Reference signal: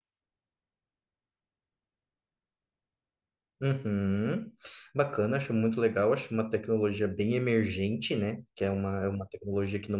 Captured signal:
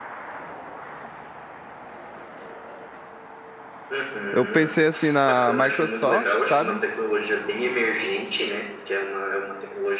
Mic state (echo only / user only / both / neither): both